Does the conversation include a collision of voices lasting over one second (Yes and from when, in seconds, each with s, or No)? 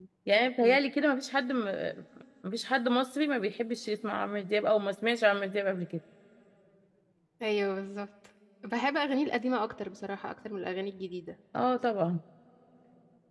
No